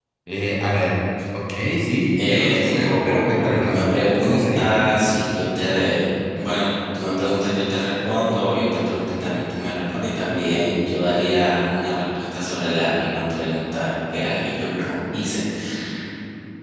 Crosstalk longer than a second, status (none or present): present